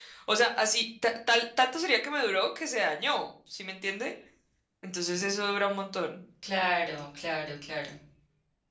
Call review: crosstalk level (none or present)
none